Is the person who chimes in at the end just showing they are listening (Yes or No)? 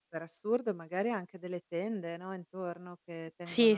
Yes